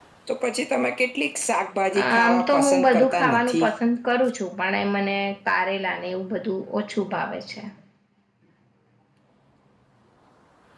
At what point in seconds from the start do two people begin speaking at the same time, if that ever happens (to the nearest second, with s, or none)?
2 s